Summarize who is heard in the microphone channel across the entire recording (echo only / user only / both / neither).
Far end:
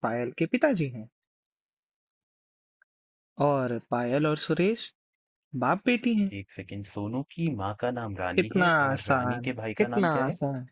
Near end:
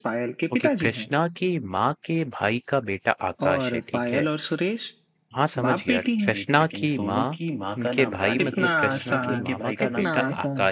both